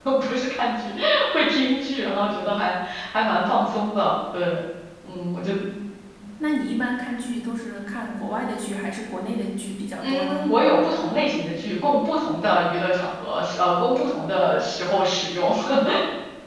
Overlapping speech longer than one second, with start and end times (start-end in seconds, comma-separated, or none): none